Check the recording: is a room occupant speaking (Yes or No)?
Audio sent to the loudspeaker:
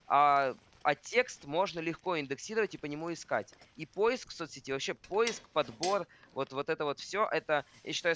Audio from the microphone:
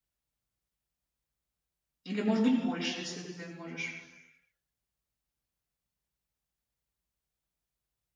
Yes